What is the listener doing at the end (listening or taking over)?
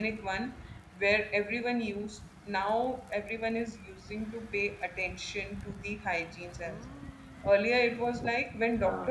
listening